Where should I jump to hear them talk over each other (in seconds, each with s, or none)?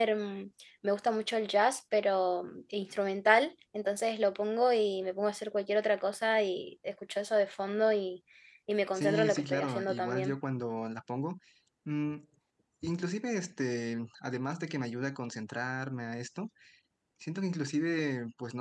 8.9 s